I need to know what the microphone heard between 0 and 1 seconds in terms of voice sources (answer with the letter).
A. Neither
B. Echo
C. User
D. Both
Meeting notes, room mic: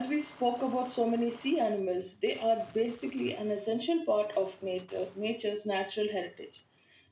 B